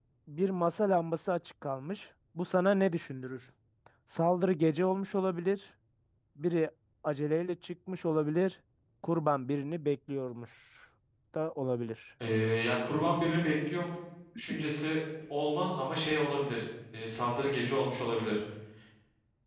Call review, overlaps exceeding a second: none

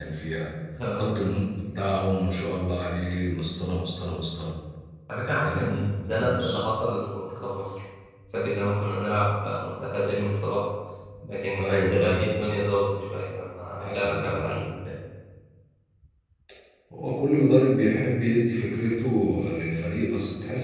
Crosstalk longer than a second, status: present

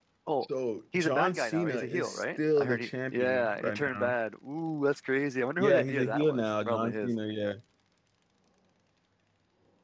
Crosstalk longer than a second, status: present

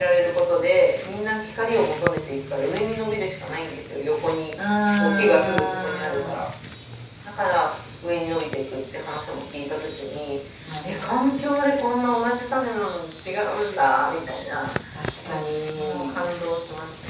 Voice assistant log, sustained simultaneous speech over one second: present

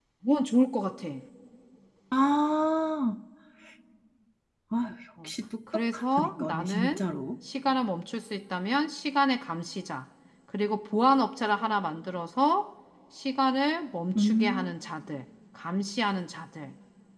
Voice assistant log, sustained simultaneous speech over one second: present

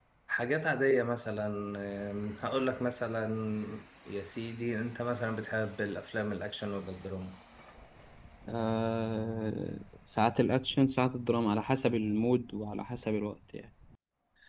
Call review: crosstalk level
none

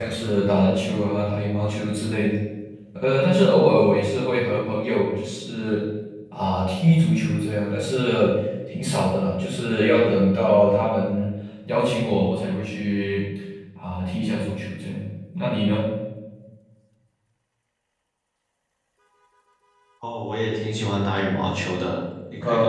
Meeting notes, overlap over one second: none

